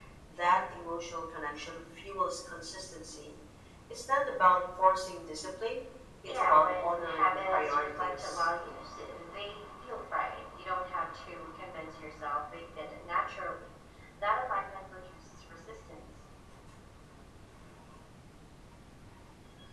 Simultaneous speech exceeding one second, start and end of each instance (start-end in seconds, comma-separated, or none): 6.2-8.5